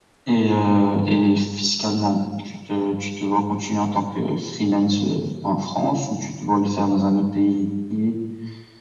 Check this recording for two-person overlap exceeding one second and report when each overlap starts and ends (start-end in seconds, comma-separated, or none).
none